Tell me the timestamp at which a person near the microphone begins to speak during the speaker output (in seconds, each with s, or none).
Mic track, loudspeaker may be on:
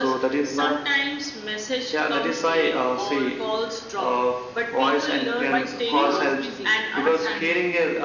5.4 s